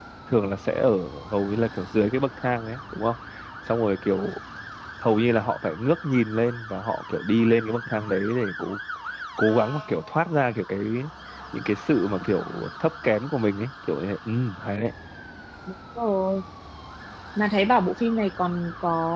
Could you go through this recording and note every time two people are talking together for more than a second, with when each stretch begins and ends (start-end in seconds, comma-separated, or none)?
none